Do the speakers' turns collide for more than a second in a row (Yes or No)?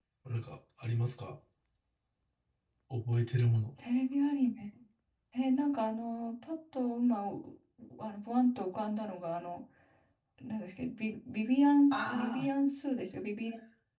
No